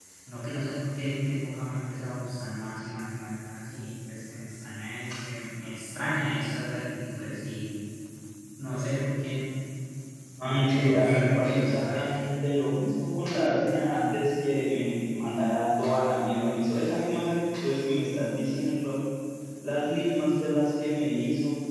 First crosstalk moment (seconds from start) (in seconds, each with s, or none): 10.4 s